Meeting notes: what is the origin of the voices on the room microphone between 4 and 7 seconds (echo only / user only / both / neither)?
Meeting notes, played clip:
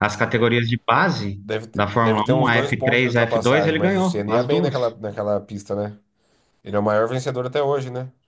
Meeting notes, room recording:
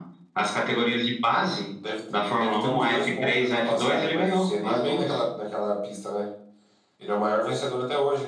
echo only